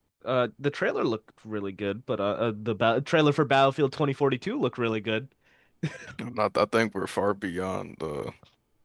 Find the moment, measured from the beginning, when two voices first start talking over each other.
none

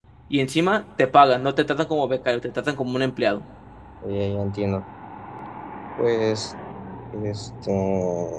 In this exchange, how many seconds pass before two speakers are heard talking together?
none

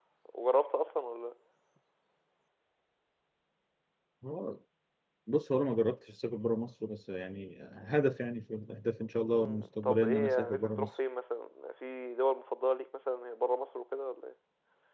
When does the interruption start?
9.1 s

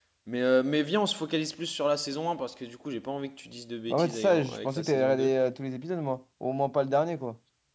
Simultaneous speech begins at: 3.9 s

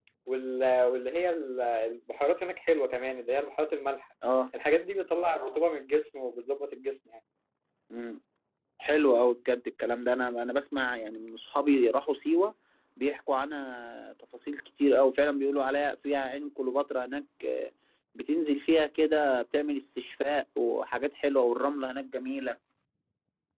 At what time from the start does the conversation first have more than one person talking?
none

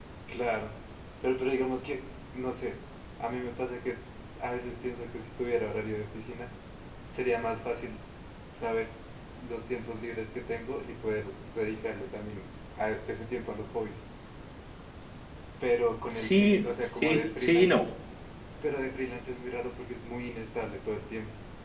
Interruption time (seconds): 16.2 s

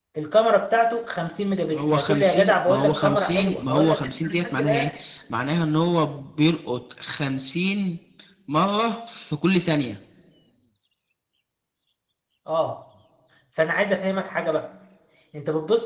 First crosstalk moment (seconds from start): 1.7 s

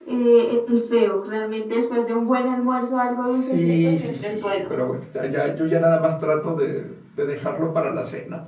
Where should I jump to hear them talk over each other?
3.2 s

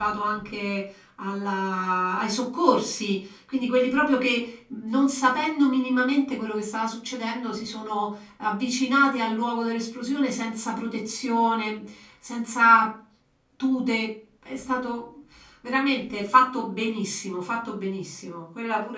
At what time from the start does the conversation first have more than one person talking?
none

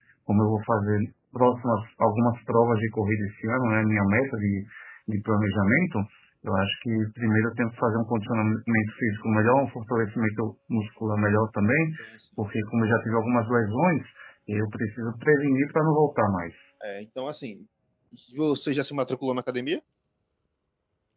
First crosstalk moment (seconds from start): none

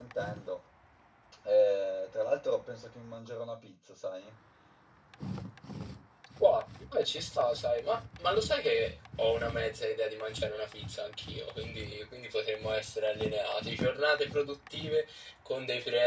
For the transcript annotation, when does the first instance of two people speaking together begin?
none

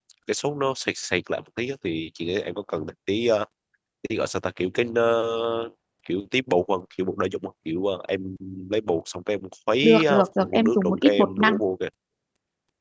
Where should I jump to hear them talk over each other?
9.8 s

